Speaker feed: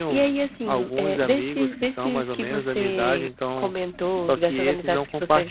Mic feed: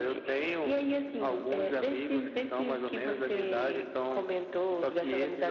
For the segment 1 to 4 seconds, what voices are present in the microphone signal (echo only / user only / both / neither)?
echo only